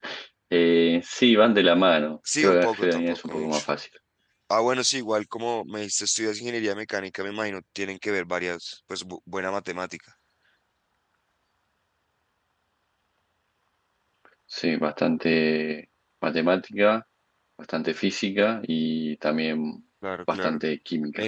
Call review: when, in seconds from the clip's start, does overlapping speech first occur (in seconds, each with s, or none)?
2.4 s